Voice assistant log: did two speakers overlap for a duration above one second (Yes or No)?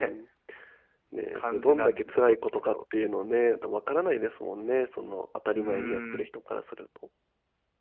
Yes